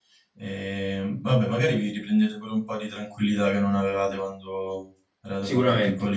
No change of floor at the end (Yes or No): No